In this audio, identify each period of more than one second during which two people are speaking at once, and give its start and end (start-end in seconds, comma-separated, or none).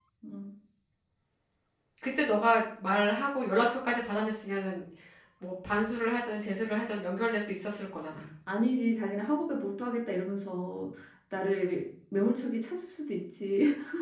none